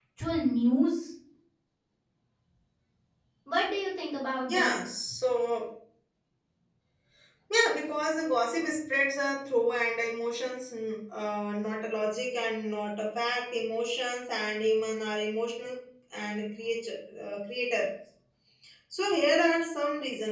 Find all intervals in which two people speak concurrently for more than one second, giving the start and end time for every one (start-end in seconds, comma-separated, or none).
none